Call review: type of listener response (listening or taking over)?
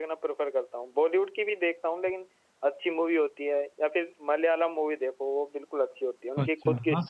taking over